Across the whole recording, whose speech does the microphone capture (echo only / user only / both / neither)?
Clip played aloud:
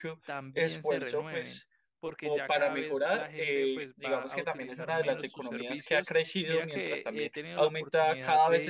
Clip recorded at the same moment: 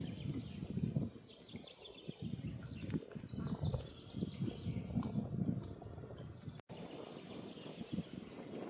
neither